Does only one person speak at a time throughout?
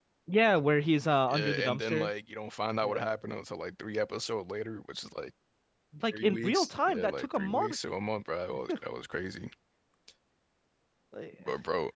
No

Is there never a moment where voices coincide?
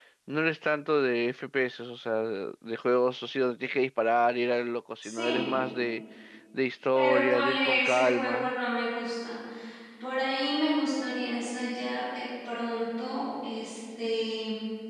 No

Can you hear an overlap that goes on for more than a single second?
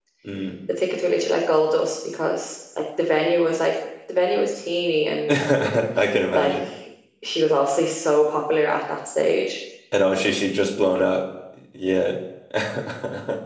No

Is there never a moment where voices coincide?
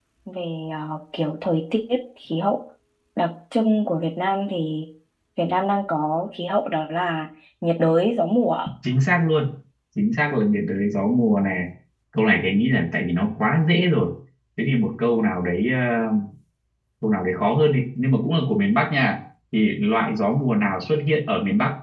Yes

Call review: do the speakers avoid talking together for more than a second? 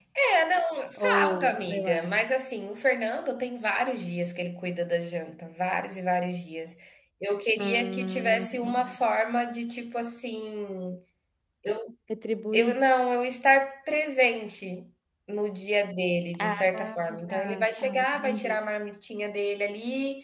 No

